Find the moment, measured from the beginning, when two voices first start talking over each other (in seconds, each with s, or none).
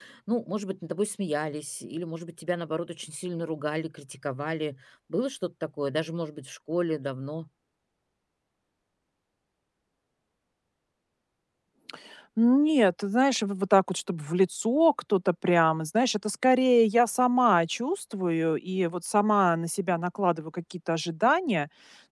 none